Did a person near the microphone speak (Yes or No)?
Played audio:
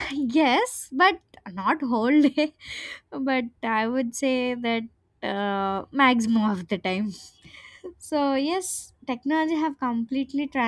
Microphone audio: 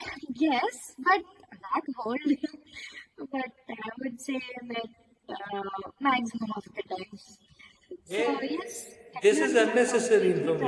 Yes